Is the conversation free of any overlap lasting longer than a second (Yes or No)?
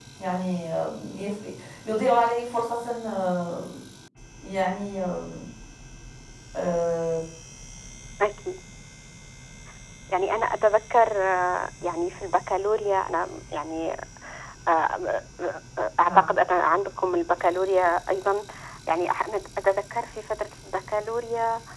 Yes